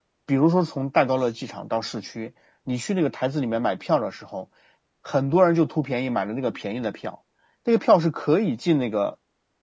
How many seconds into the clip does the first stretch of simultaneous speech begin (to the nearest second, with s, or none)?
none